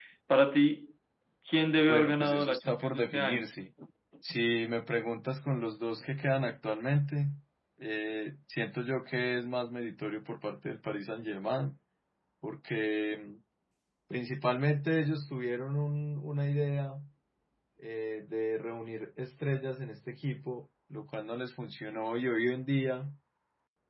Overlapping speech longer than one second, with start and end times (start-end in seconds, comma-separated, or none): 1.9-3.4